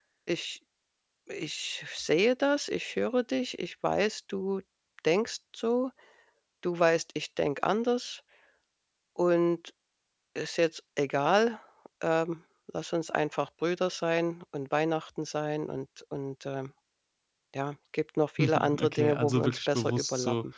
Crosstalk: present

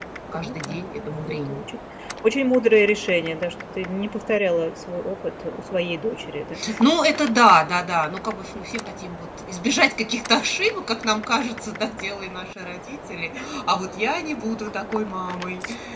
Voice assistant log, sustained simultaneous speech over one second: none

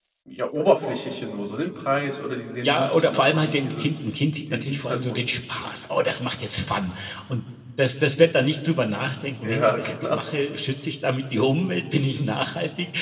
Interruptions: present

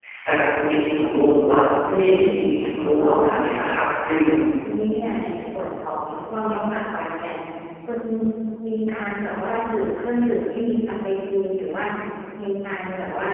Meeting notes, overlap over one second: present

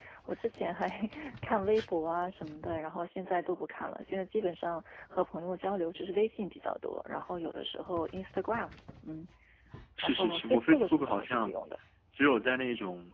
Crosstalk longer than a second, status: present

